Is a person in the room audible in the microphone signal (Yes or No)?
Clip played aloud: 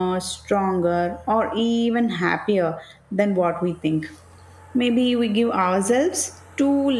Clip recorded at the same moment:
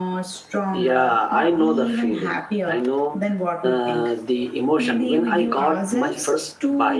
Yes